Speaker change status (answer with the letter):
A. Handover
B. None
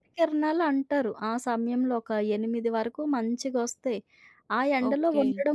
B